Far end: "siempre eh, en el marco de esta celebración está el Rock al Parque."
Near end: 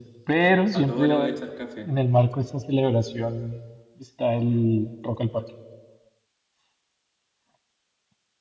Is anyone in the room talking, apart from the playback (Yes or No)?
Yes